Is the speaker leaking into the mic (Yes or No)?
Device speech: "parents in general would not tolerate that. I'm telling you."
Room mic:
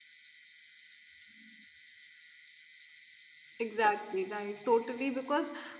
No